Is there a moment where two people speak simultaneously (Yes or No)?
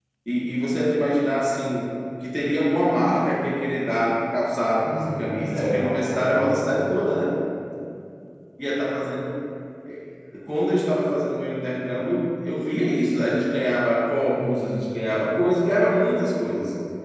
Yes